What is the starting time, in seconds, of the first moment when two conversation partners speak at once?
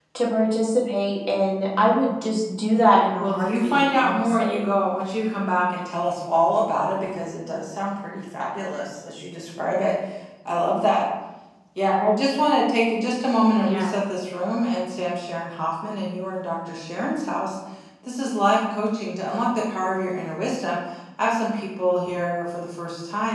3.2 s

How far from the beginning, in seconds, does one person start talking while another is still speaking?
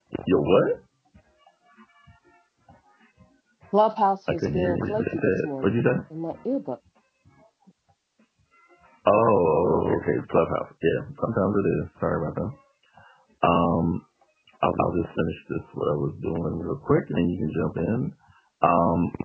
4.3 s

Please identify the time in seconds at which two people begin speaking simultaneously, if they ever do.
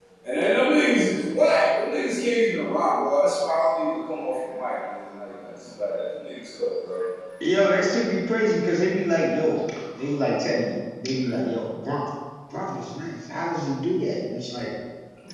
none

